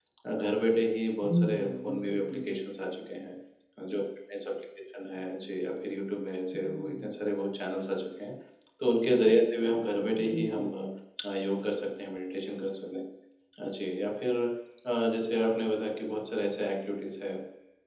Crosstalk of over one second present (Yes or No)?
Yes